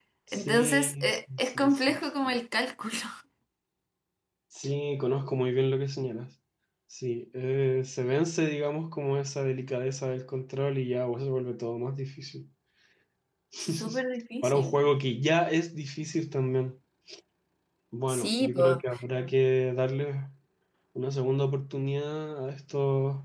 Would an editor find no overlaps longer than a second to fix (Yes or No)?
No